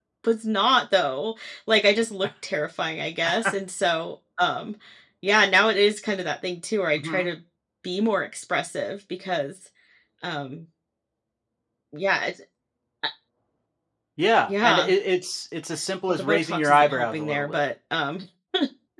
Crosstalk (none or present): present